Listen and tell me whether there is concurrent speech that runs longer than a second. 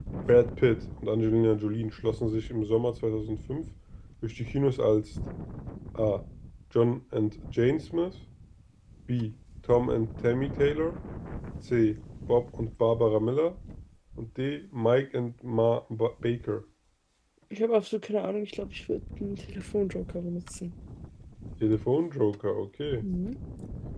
No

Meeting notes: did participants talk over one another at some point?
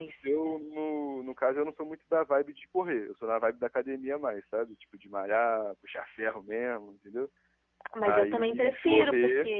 Yes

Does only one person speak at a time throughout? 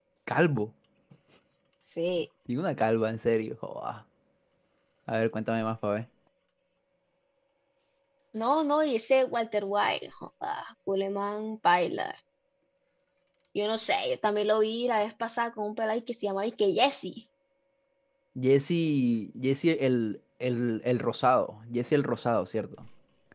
Yes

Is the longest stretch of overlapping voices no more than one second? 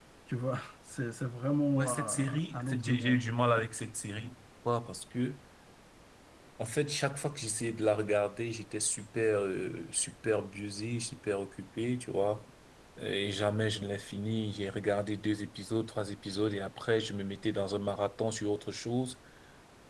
No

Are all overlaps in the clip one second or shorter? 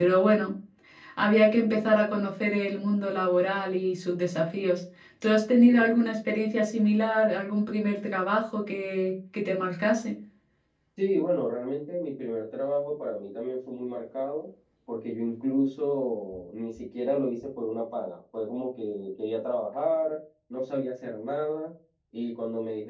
Yes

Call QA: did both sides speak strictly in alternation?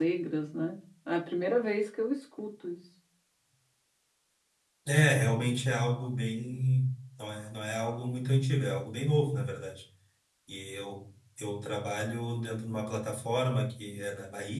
Yes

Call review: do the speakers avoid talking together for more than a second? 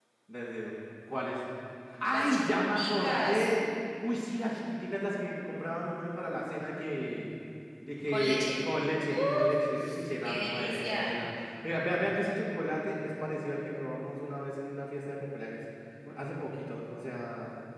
No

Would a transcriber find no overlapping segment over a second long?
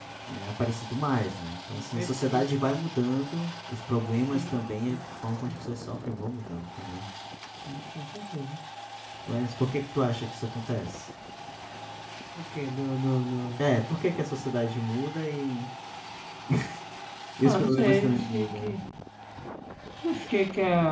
No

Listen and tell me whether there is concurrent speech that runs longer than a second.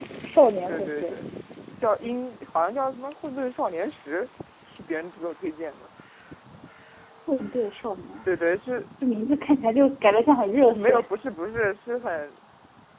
No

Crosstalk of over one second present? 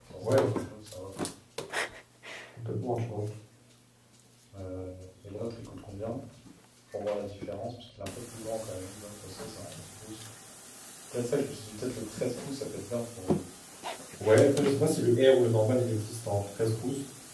No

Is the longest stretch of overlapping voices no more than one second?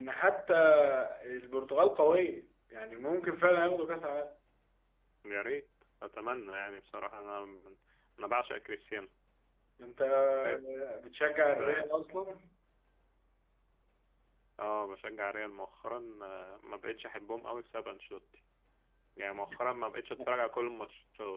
Yes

